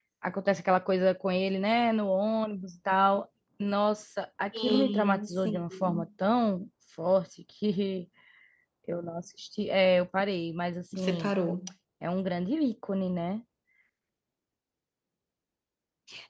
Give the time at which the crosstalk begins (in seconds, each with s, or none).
4.6 s